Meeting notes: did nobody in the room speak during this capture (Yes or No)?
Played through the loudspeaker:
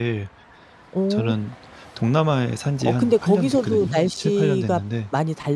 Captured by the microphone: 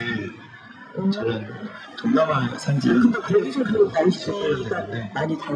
Yes